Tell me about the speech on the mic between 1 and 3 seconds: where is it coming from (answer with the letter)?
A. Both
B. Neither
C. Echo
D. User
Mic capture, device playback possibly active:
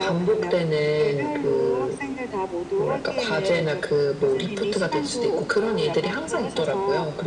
C